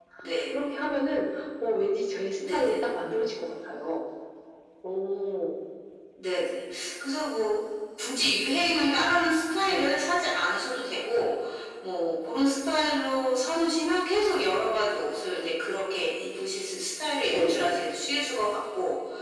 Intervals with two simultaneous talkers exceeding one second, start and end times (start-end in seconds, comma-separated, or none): none